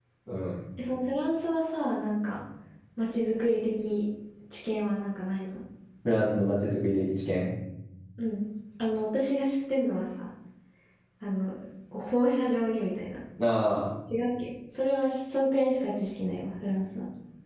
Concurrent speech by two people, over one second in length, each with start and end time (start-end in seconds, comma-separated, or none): none